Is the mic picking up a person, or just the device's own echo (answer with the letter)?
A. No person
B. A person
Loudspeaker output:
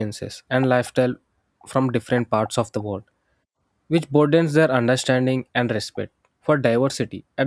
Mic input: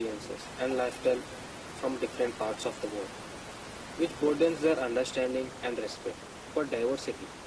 A